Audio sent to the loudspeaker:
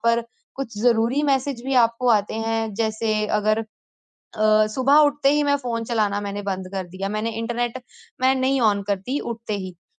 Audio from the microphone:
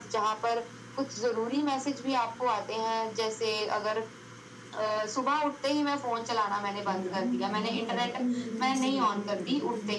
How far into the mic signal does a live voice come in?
7 s

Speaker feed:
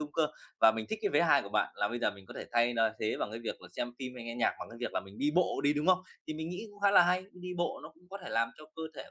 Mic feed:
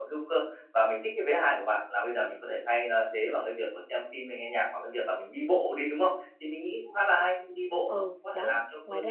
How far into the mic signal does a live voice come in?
8 s

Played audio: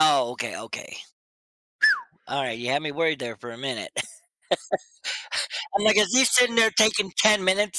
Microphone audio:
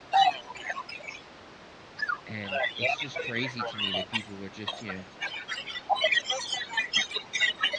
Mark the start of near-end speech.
2 s

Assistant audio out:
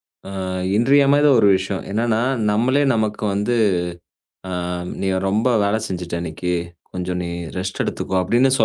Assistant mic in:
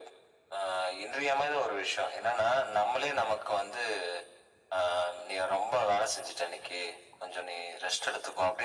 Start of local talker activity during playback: none

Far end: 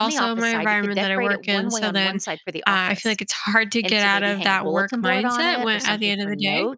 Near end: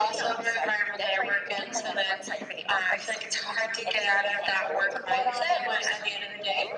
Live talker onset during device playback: none

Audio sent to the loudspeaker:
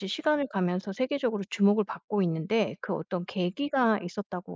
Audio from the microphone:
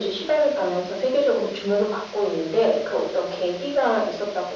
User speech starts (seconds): none

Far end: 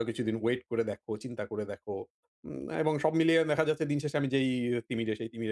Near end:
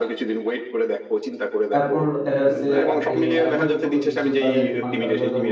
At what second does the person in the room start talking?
2 s

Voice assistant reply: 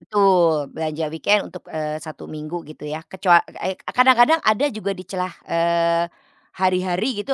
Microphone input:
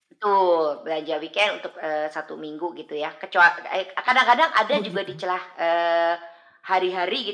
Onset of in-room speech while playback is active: 5 s

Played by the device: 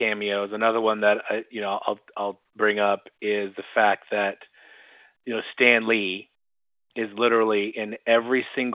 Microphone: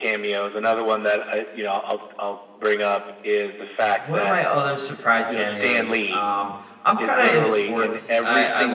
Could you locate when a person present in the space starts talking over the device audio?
4 s

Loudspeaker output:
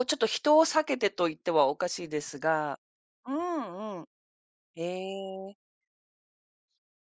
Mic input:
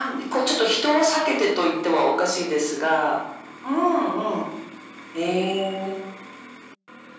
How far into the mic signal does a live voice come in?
none

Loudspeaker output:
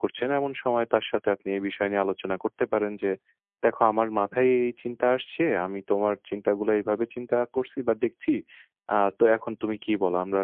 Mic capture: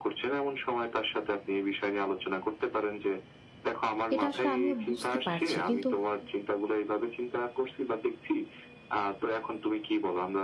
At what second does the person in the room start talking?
4 s

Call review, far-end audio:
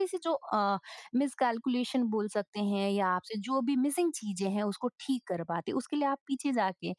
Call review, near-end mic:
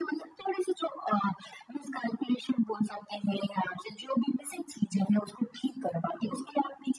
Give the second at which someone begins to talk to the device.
none

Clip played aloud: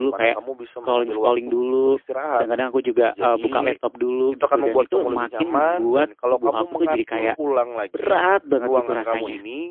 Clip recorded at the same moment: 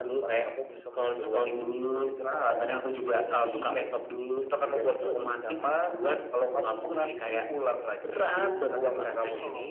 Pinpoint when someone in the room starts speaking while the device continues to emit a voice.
8 s

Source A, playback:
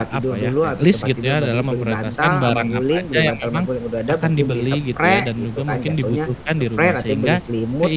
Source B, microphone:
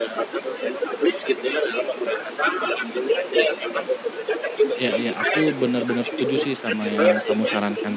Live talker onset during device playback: 5 s

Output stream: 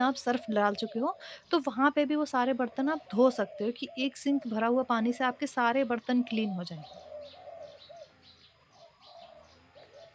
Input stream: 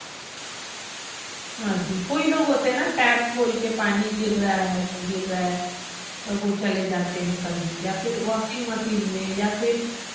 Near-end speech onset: 2 s

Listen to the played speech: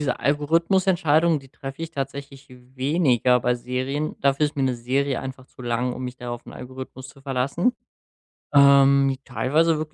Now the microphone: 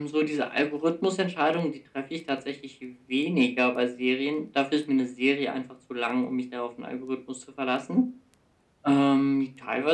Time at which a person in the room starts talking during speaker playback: none

